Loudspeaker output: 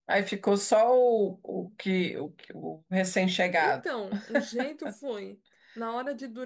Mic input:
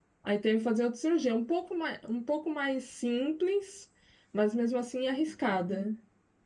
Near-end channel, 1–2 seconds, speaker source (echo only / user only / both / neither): user only